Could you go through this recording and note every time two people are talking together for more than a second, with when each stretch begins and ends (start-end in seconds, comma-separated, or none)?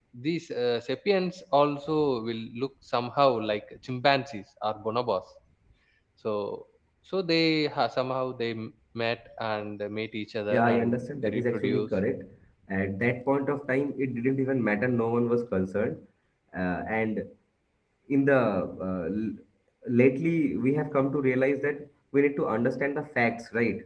10.5-11.9